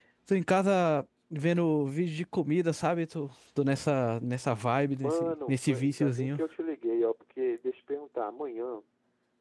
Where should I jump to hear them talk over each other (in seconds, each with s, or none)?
5.0 s